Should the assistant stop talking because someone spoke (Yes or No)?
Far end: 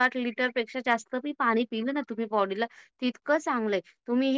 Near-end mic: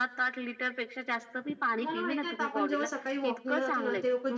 Yes